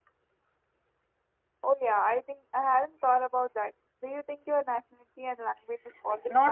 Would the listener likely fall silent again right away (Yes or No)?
No